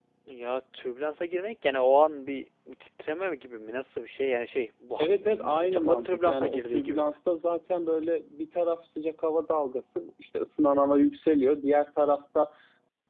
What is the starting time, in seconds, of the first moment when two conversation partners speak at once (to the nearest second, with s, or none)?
5 s